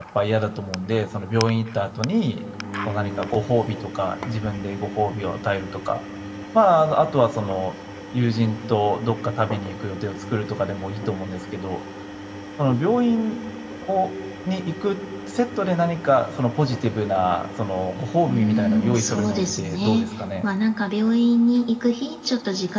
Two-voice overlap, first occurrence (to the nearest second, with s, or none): 18 s